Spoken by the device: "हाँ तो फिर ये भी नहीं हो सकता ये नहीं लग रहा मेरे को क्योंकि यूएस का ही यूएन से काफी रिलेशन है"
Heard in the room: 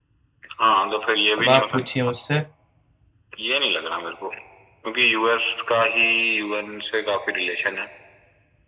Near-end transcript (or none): अब आप पूछिए मुझसे